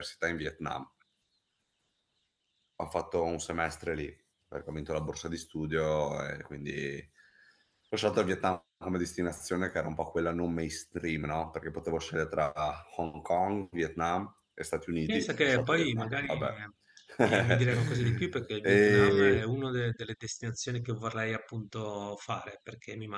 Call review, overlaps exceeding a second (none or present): present